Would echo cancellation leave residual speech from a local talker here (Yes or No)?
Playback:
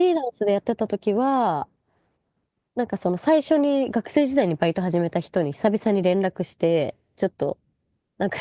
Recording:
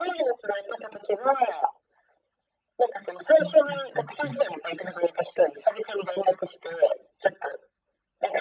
Yes